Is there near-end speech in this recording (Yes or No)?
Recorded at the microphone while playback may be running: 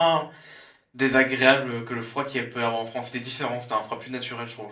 Yes